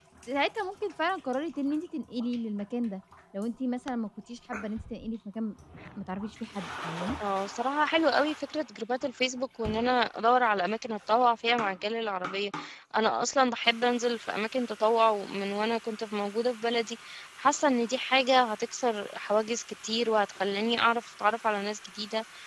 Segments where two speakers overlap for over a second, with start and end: none

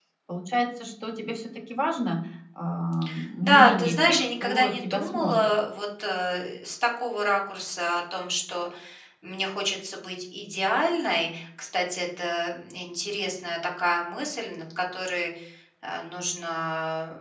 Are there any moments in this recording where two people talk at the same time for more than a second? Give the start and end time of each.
3.4-5.5

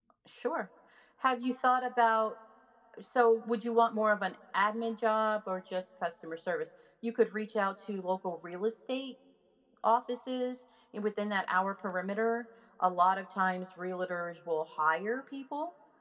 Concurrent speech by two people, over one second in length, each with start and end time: none

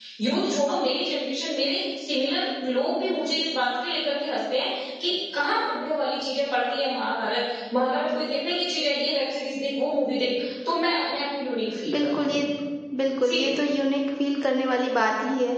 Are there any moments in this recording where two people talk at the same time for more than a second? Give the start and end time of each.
none

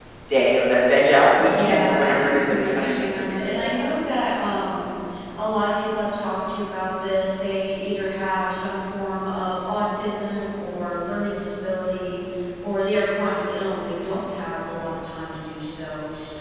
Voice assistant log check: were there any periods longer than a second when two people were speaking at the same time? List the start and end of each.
1.6-3.7

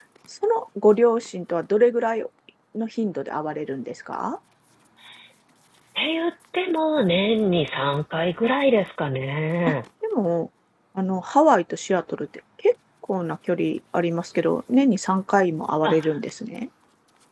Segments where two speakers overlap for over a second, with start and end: none

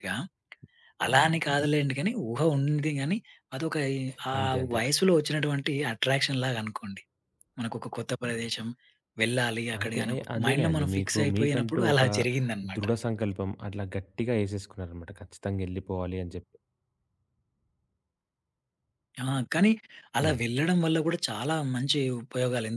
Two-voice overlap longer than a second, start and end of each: 9.8-12.0

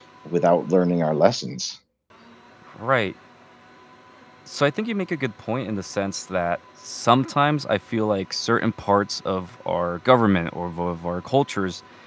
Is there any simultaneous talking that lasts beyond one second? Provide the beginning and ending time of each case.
none

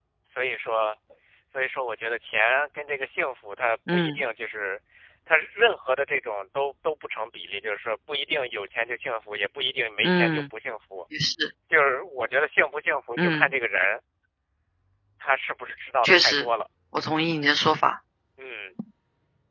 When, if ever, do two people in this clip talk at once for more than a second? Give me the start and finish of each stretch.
none

